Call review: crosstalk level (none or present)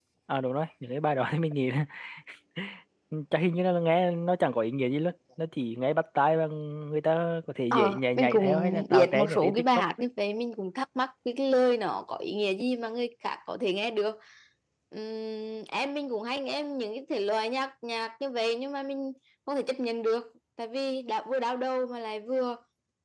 present